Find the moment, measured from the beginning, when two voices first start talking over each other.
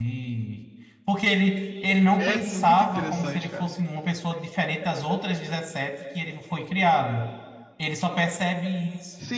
2.2 s

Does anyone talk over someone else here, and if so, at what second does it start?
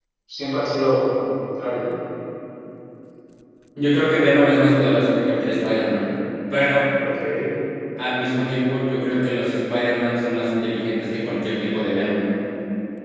none

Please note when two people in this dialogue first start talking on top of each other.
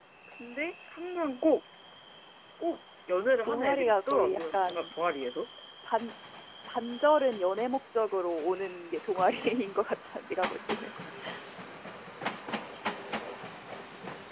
3.5 s

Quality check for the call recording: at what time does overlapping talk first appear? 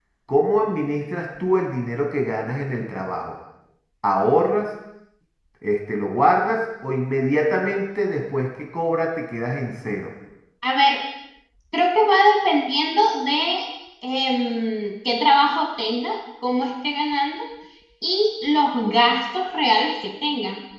none

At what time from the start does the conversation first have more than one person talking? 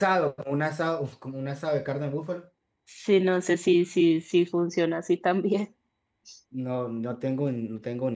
none

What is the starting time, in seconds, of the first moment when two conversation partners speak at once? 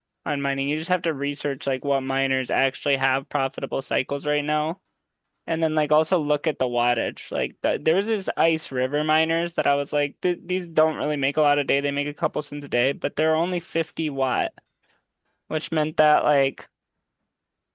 none

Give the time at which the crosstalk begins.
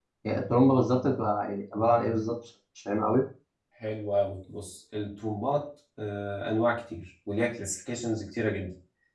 none

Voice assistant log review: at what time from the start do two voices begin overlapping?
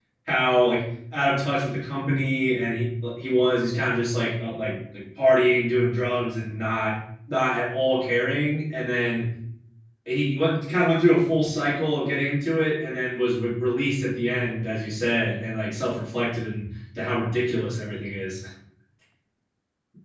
none

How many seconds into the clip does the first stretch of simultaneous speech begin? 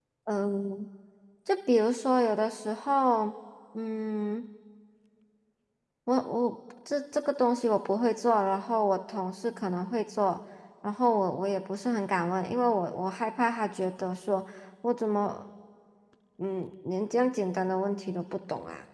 none

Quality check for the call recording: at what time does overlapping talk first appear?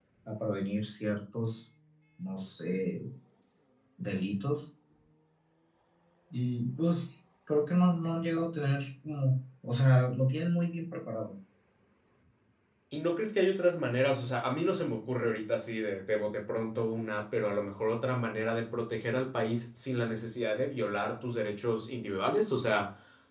none

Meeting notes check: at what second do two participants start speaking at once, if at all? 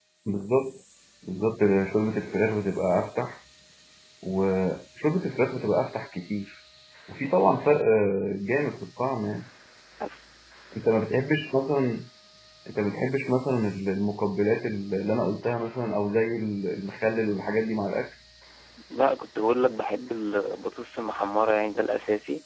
none

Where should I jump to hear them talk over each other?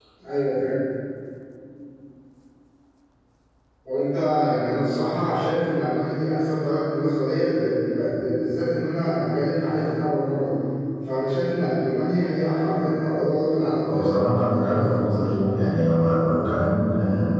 13.8 s

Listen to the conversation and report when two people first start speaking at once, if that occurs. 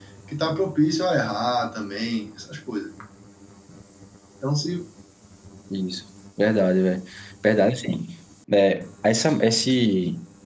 none

